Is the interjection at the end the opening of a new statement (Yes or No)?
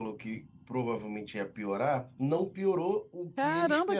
Yes